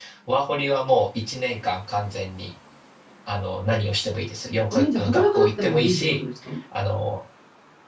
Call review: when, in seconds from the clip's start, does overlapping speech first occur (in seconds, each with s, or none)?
4.7 s